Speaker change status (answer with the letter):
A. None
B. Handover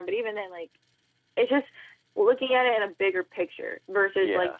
A